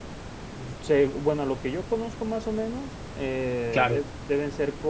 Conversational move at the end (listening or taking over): listening